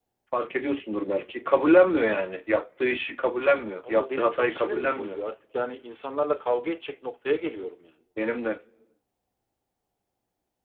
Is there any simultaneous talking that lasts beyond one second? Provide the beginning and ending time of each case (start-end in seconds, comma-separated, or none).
3.9-5.2